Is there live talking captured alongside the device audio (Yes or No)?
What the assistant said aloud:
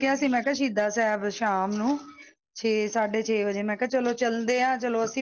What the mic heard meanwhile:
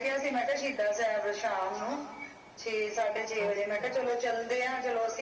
Yes